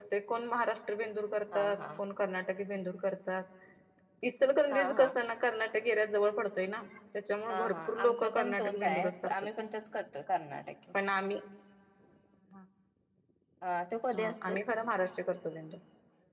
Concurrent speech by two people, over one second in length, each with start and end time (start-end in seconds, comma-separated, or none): 7.5-9.3